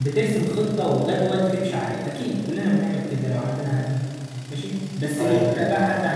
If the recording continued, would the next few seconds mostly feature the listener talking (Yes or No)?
No